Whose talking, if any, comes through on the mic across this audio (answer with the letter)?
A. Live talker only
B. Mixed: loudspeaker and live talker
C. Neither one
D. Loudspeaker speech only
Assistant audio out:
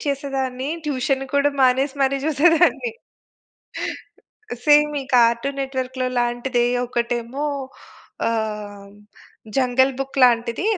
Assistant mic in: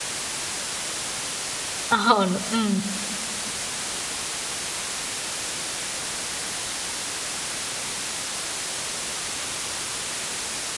A